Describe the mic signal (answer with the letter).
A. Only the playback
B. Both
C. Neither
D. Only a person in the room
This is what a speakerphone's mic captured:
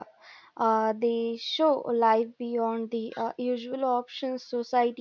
D